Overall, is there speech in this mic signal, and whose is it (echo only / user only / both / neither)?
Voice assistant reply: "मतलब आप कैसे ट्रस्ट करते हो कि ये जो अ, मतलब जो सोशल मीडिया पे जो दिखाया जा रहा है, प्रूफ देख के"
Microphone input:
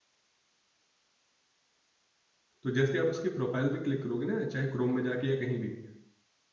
user only